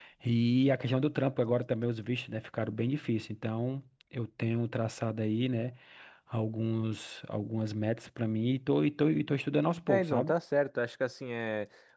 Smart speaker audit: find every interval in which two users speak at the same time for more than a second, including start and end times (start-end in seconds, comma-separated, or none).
none